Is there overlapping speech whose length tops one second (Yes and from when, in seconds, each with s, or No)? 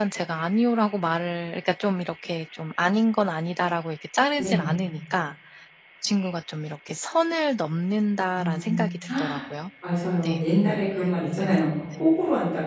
No